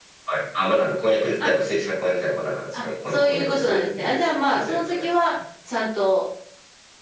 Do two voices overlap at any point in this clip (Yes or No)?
Yes